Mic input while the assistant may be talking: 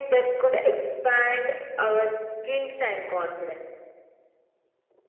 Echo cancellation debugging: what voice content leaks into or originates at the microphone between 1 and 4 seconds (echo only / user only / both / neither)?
echo only